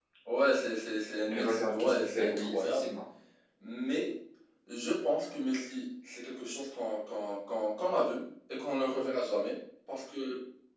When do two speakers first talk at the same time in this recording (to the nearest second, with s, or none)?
1 s